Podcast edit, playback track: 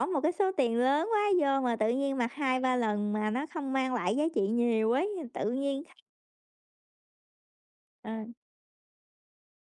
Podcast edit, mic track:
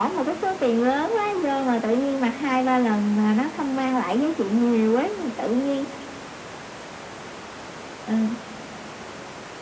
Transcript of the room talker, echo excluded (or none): none